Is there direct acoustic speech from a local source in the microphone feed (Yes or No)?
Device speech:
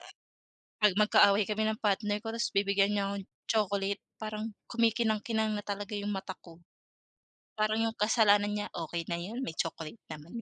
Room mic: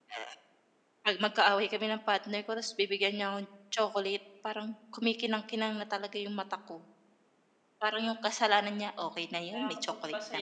Yes